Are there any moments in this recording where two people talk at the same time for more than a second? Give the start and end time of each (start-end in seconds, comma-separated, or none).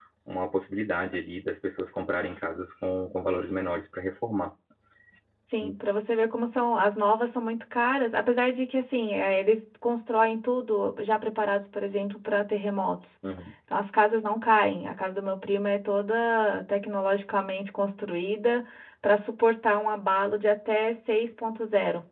none